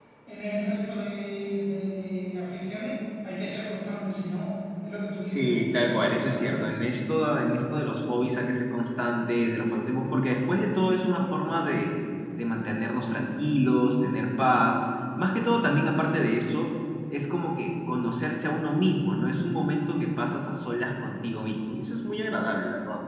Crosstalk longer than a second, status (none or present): present